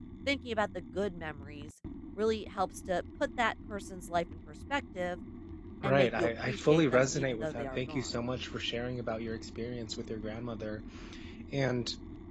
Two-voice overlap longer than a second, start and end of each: 5.8-8.1

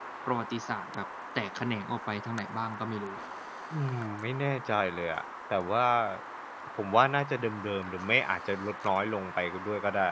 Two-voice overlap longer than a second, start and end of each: none

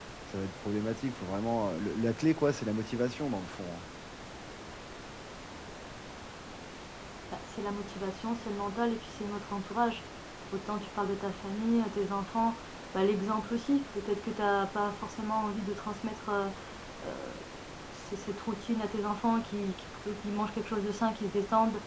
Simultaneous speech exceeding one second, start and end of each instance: none

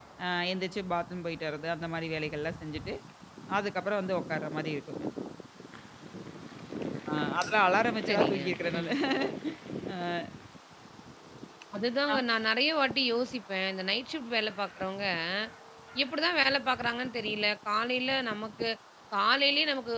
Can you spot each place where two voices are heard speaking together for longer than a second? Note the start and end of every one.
none

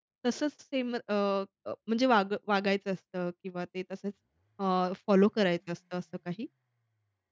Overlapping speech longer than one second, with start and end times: none

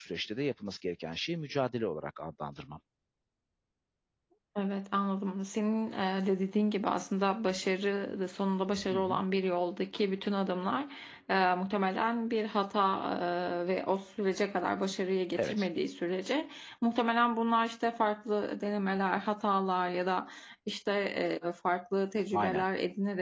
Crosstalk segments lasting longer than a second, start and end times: none

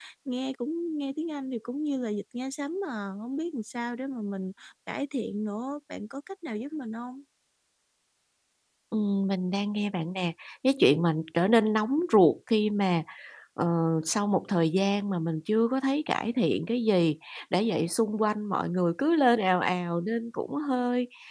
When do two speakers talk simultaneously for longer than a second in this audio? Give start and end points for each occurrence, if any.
none

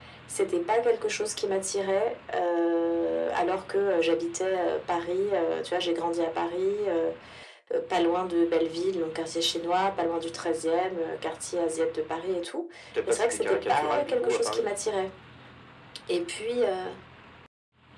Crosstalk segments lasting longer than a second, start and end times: 13.1-14.7

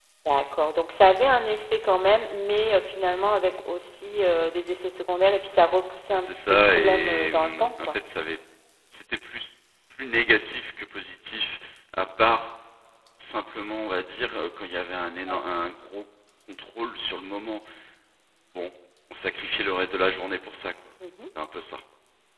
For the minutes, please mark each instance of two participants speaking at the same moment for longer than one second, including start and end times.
6.1-8.0

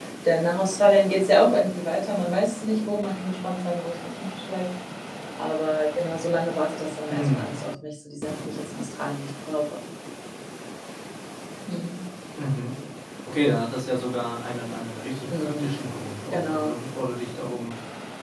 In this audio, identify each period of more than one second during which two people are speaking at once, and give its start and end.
none

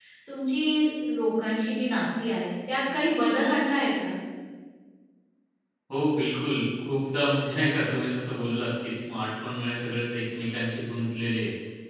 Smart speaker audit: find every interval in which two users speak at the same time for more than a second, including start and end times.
none

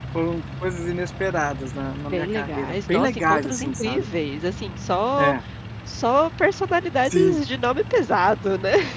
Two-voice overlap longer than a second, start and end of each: 2.1-4.0

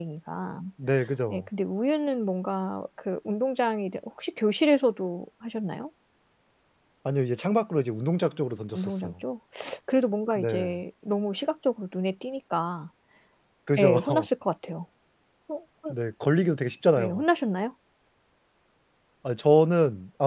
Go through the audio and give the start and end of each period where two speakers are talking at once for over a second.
none

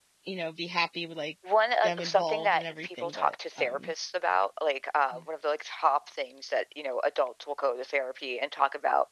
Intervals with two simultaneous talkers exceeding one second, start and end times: 1.8-3.9

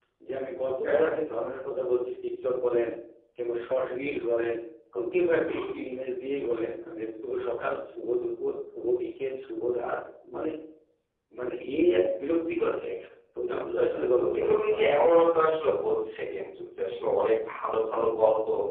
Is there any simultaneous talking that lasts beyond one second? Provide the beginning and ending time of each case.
13.6-15.4

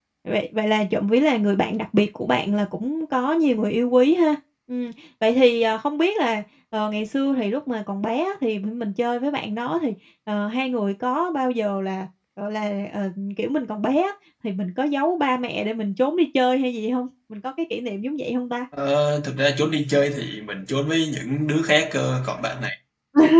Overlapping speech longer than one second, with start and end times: none

